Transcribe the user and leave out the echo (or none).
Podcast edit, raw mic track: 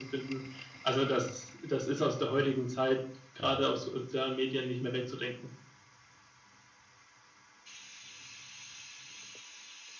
Ja.